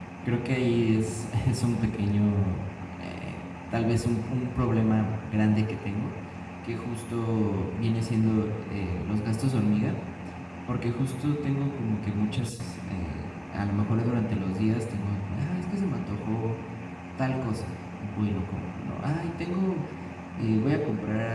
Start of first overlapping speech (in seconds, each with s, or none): none